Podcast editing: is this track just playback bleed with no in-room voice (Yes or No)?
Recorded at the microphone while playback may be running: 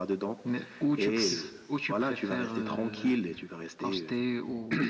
No